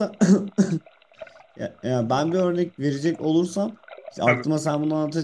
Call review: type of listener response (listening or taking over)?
listening